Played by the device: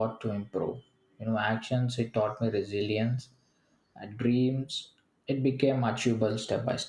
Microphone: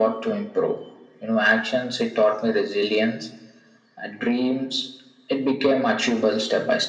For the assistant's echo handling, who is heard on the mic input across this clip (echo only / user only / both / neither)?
echo only